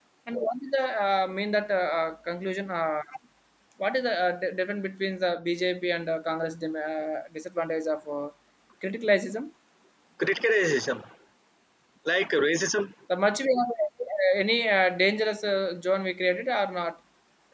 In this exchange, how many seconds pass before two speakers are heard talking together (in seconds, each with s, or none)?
none